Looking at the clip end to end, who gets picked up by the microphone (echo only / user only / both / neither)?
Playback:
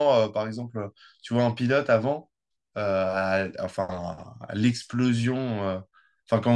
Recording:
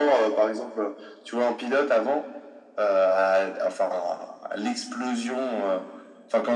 echo only